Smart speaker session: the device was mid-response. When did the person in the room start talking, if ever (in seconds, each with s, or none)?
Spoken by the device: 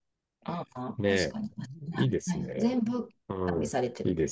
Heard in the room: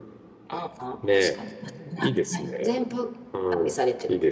none